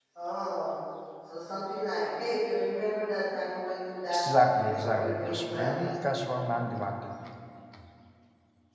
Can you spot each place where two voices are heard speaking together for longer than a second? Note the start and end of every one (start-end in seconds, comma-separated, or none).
4.1-5.7